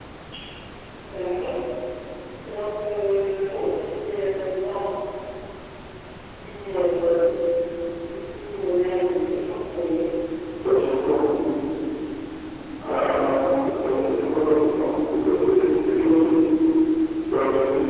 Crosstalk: none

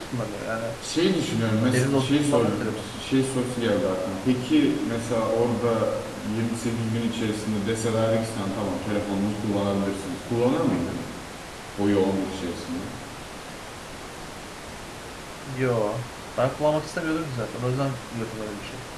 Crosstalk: present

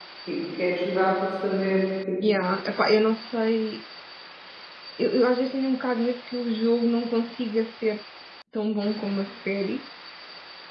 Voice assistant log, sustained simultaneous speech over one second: none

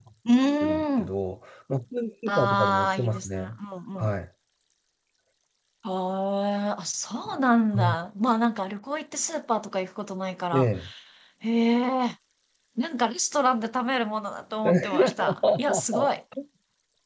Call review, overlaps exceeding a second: present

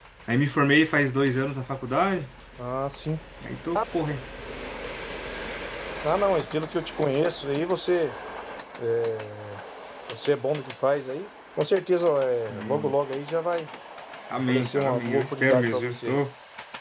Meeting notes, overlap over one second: present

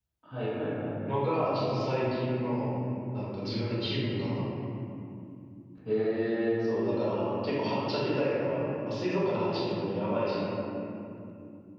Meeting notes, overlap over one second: none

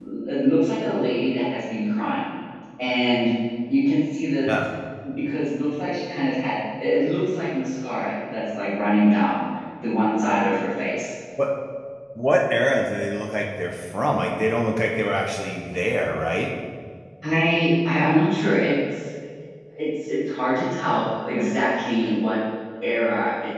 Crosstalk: none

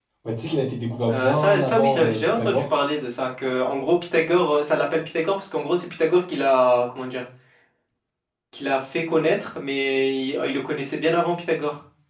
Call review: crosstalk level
present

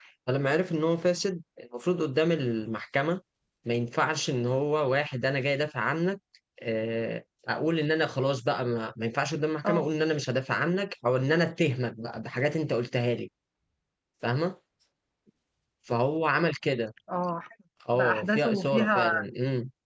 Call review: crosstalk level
present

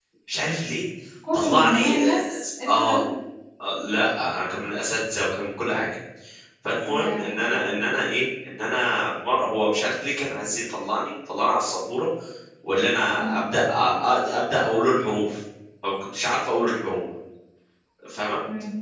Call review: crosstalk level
present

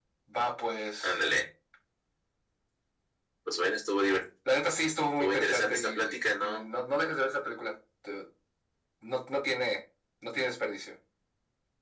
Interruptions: present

